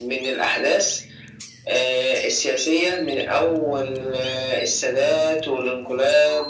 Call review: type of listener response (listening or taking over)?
listening